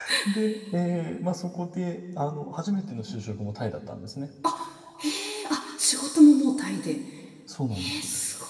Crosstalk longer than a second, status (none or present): none